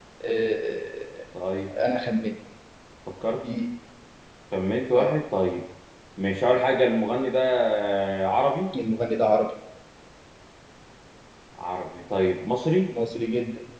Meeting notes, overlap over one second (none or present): none